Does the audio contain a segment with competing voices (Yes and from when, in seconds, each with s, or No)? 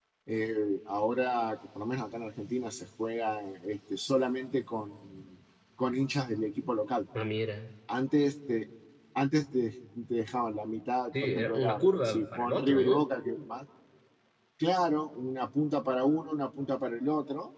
Yes, from 11.1 s